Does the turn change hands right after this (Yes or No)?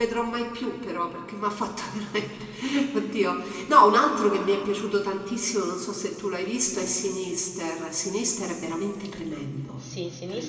Yes